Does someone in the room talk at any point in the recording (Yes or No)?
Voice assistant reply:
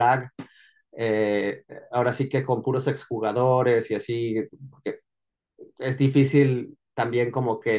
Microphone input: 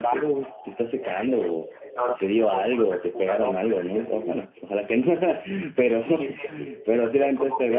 Yes